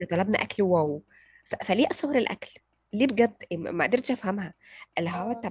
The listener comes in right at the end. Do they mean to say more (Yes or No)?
No